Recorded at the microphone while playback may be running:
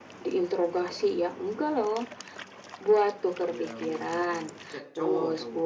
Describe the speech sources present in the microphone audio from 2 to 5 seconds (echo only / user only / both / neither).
both